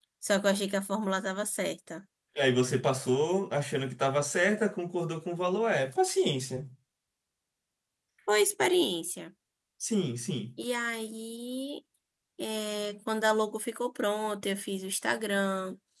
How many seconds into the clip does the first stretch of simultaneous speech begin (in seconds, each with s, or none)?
none